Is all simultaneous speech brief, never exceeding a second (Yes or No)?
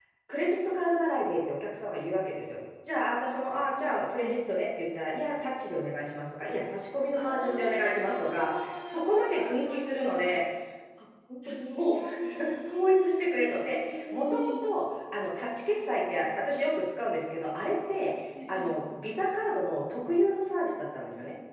No